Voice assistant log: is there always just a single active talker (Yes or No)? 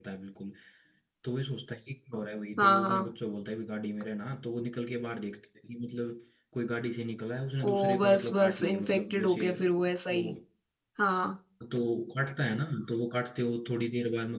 No